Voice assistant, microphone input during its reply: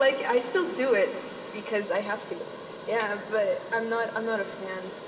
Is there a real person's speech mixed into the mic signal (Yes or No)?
No